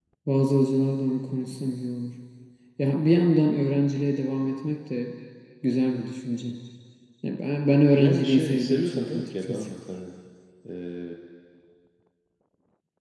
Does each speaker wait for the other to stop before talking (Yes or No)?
No